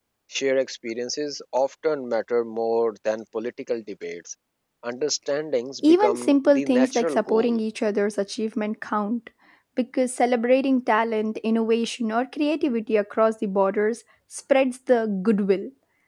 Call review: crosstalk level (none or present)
present